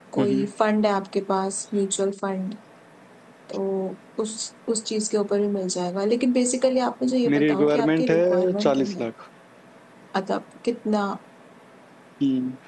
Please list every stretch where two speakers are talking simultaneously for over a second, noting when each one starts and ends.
7.3-9.1

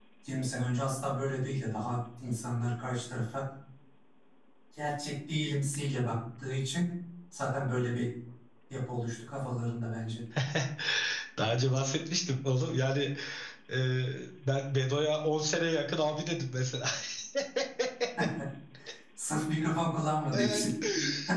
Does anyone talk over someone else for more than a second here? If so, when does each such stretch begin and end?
none

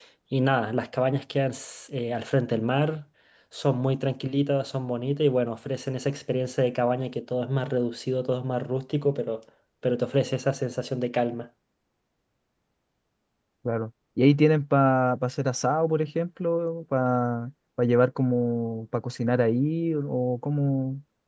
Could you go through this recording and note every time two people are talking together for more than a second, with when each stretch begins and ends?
none

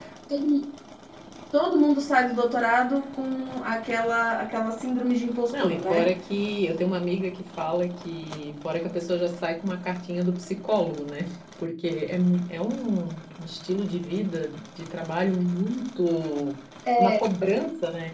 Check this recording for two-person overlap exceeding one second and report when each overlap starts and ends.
none

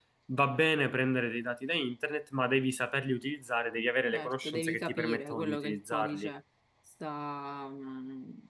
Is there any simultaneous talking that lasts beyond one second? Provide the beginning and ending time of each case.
4.1-6.3

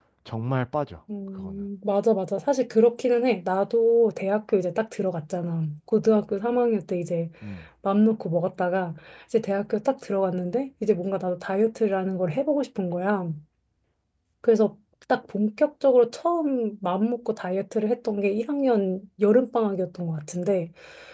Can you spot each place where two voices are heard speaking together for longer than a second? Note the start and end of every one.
none

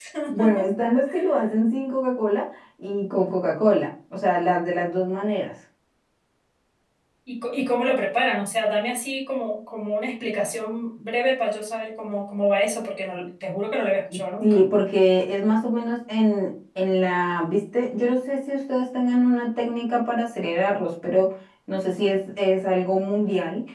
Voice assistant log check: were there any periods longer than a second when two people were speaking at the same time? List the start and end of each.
none

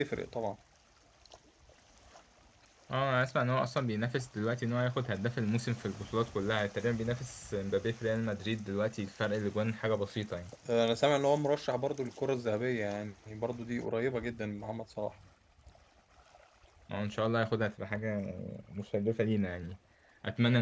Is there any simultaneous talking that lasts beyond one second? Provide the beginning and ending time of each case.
none

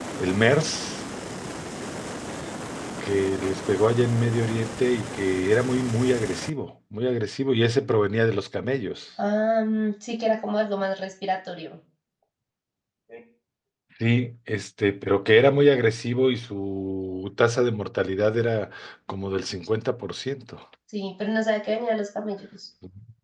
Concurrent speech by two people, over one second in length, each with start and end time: none

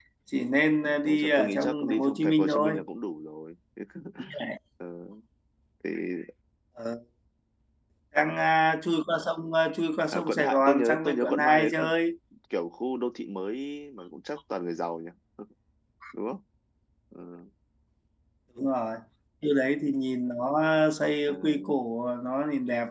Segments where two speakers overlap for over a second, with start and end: 0.8-2.8, 10.1-11.9

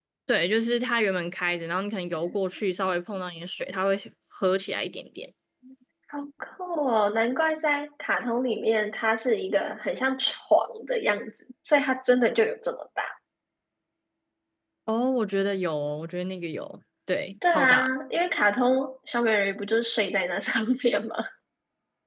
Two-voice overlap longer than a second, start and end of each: none

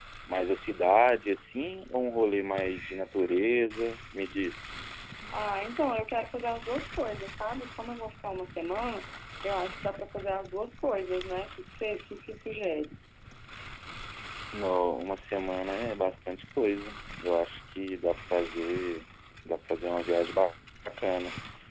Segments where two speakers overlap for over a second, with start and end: none

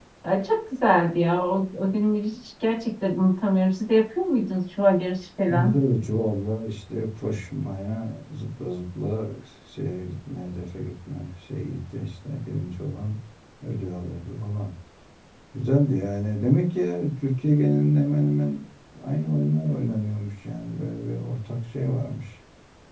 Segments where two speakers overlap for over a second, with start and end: none

